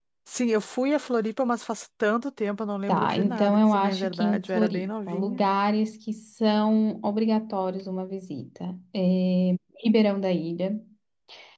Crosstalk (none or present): present